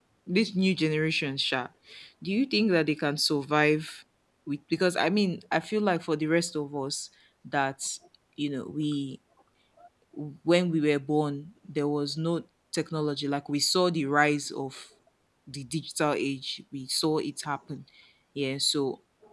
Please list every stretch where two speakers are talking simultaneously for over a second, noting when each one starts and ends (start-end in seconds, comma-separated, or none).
none